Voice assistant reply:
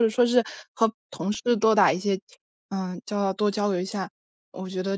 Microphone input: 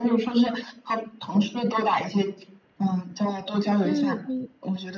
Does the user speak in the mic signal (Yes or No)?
Yes